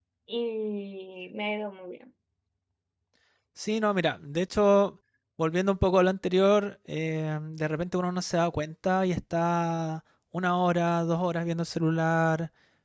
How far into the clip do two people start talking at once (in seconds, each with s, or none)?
none